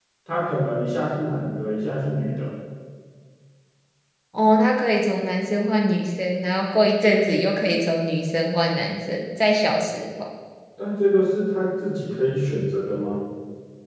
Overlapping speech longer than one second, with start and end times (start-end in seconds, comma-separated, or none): none